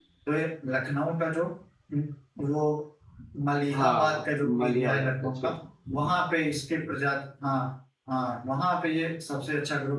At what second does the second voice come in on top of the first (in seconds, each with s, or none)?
3.7 s